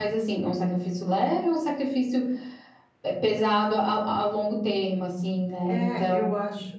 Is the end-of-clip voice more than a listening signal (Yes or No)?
Yes